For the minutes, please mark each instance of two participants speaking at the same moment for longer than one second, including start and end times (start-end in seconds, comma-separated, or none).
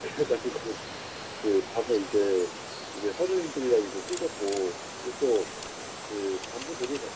none